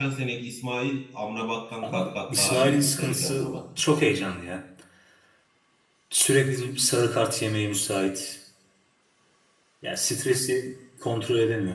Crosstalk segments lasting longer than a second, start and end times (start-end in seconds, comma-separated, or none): 1.8-3.5